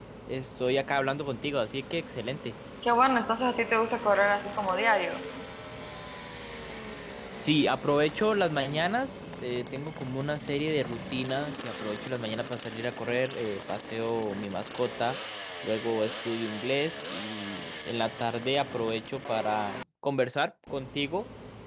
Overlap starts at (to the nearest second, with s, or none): none